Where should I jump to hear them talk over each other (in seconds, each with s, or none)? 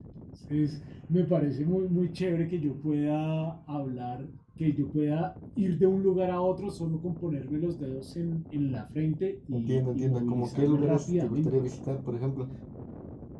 9.5 s